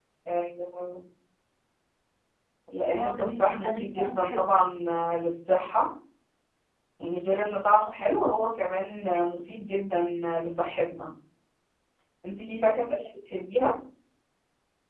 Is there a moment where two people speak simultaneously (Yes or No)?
Yes